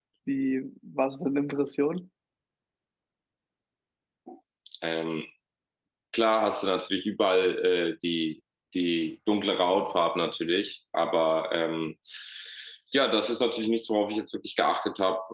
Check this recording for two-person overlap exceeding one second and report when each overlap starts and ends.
none

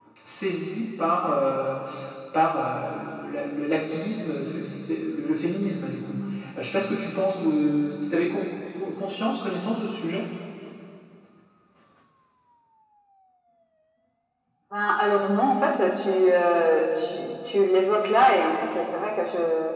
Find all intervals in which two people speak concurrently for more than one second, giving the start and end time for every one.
none

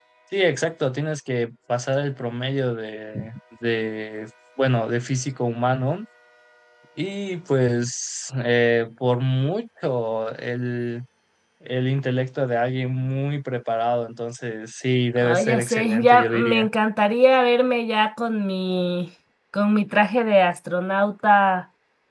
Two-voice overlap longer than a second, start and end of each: 15.2-16.7

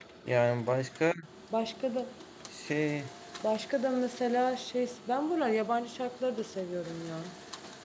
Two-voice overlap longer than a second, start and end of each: none

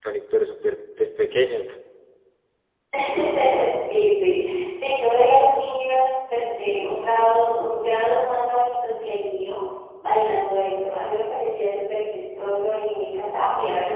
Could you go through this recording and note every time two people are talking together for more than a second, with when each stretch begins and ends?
none

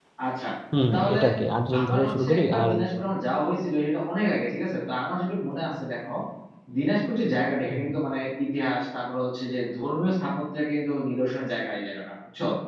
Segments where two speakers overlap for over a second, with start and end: 1.8-3.0

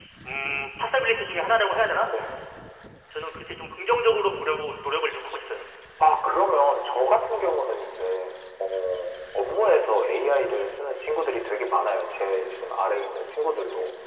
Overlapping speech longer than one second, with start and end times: none

